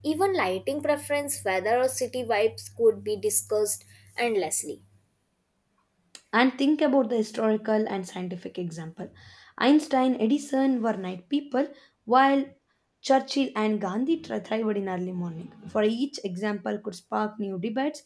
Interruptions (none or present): none